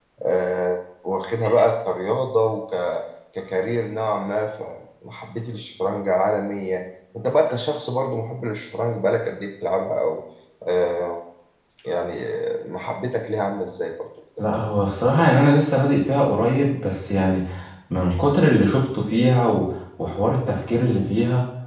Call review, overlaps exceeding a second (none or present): none